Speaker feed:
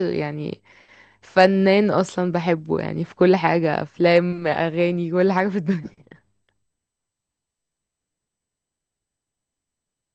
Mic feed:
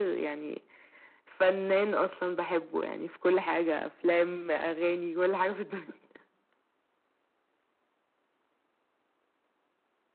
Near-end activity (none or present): none